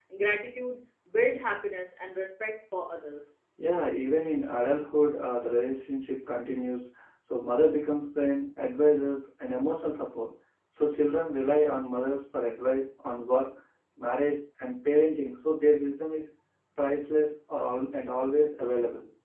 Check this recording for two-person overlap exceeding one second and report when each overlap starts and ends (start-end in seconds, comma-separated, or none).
none